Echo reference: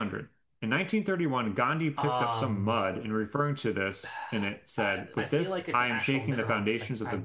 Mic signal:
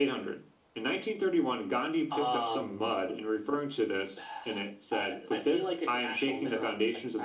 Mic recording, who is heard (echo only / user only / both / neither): echo only